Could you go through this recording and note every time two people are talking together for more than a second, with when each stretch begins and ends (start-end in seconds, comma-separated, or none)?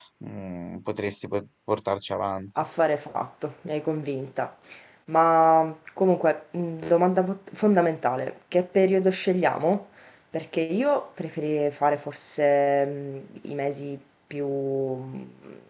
none